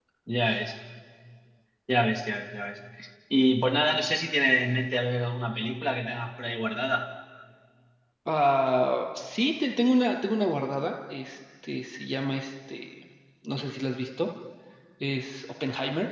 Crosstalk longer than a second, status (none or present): none